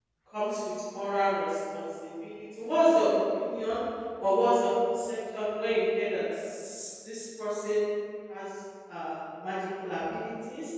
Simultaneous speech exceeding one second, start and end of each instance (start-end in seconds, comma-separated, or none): none